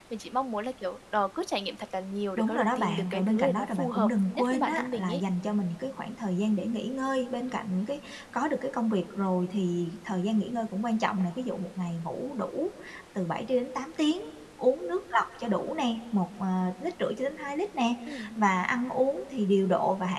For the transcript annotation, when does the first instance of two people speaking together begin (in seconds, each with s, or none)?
2.4 s